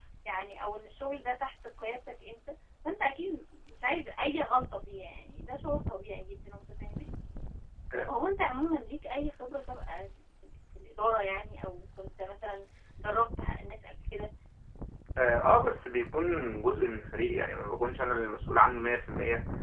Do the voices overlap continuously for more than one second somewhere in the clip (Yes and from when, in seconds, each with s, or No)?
No